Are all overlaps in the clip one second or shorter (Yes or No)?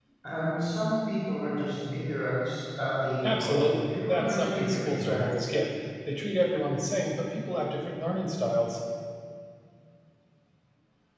No